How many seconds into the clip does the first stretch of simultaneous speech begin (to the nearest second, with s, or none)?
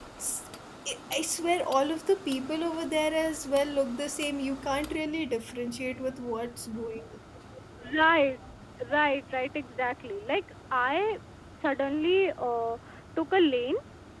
none